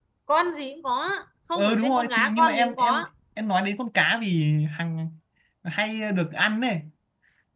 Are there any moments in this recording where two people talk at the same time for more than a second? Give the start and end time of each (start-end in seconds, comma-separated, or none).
1.6-3.0